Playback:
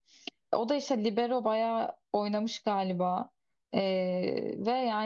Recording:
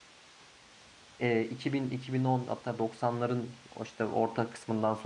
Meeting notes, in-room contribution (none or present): present